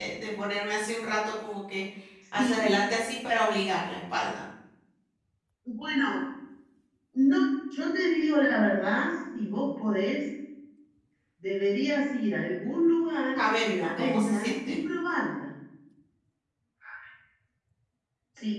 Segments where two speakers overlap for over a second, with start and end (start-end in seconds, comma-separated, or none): 13.4-14.8